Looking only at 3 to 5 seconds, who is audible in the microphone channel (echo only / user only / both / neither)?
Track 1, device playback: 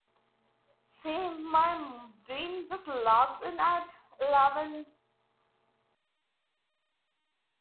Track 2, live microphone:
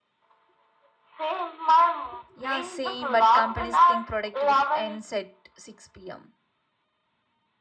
both